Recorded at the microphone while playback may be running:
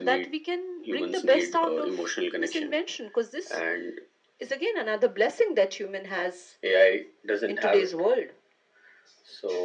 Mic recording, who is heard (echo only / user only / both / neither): echo only